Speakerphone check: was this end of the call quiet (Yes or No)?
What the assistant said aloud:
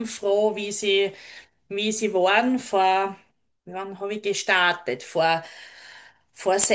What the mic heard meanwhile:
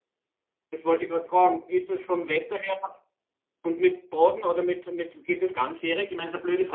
No